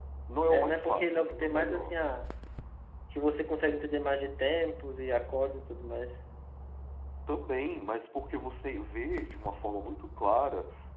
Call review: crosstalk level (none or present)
present